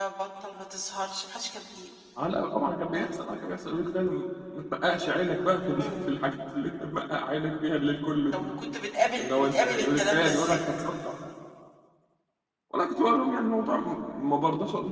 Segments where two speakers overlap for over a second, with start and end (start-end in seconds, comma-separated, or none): 9.2-10.7